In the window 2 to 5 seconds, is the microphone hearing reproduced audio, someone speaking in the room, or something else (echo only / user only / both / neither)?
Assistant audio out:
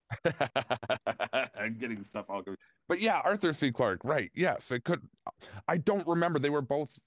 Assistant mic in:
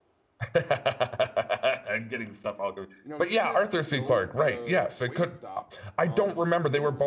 both